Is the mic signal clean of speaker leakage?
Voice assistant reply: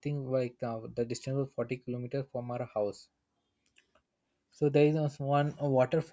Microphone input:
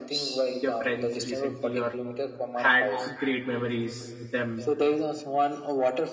No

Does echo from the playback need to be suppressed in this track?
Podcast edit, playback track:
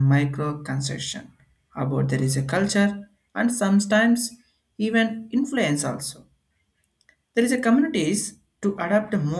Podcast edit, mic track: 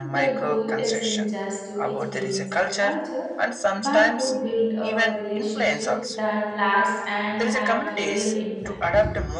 Yes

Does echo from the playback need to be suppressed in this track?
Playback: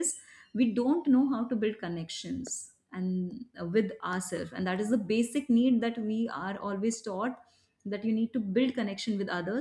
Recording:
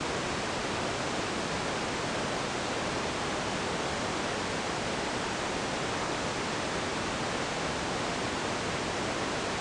No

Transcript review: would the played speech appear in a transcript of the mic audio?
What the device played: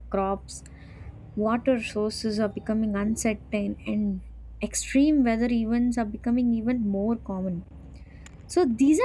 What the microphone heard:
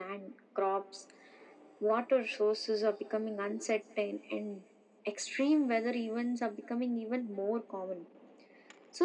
Yes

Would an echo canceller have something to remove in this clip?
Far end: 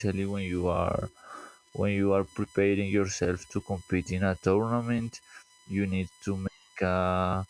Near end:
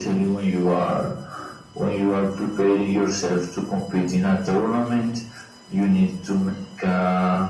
Yes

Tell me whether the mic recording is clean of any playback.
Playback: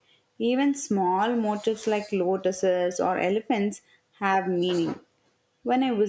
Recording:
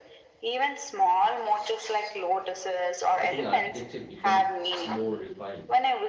No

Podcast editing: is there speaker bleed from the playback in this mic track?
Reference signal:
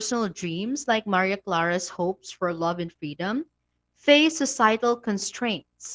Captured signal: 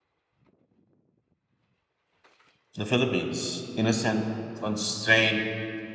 No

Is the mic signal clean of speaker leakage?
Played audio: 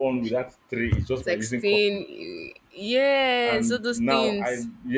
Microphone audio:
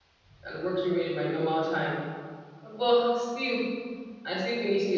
Yes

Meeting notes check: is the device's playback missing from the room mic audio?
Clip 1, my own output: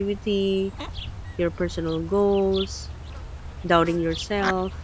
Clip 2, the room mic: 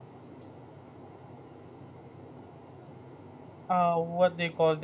Yes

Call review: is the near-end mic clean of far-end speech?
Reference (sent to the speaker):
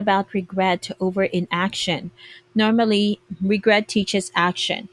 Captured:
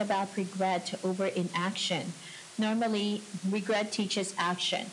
No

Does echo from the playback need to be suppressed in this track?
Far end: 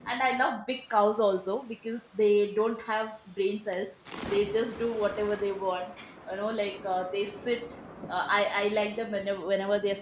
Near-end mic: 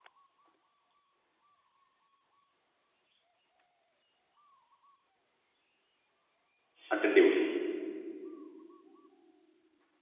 No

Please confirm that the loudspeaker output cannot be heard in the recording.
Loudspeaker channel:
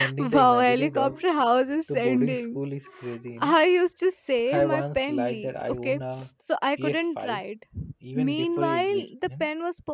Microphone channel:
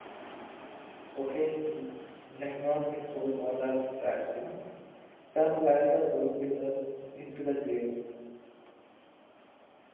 Yes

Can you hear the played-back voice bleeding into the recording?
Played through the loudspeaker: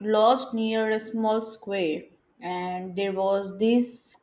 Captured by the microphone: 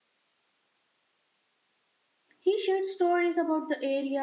No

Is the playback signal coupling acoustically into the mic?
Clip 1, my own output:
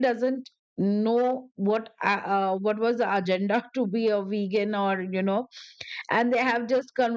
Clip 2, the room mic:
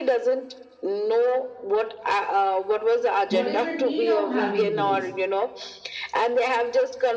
Yes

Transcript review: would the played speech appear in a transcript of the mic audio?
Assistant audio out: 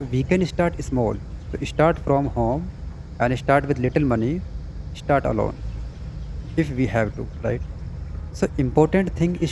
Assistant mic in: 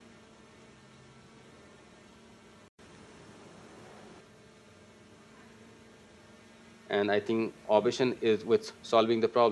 No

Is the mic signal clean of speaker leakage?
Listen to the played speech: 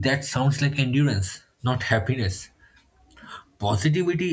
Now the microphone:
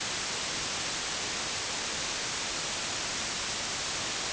Yes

